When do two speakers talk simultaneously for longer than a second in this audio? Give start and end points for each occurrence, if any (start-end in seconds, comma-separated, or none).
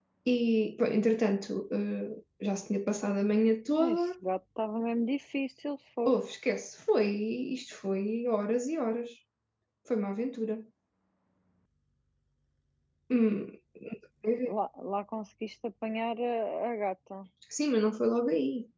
none